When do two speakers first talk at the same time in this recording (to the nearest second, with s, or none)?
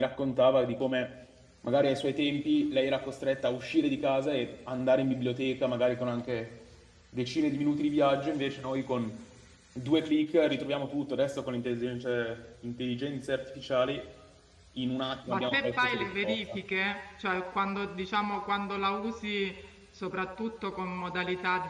15 s